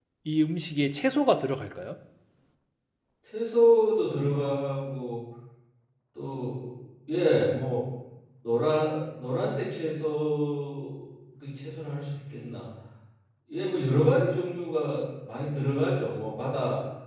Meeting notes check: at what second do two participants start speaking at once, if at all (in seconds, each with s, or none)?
none